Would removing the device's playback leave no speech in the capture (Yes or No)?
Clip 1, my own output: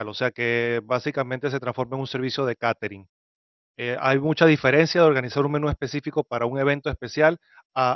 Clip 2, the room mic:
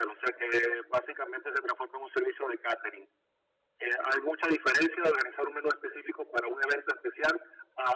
Yes